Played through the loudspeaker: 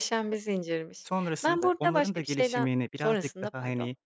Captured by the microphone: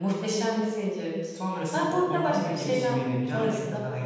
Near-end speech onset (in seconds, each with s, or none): none